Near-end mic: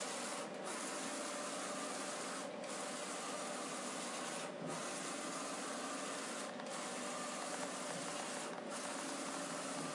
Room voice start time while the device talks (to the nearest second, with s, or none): none